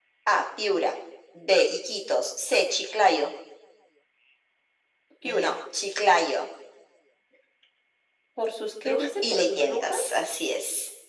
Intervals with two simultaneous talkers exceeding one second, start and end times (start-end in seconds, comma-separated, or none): 8.8-10.2